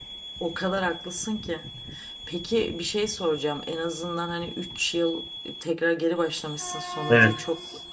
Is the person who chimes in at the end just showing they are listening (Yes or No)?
Yes